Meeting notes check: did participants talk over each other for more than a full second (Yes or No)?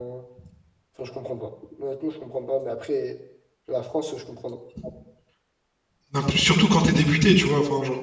No